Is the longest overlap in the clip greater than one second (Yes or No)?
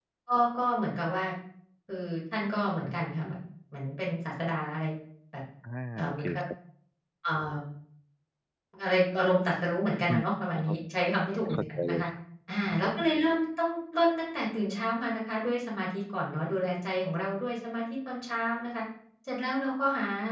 No